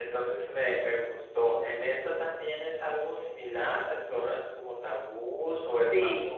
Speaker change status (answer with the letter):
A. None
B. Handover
B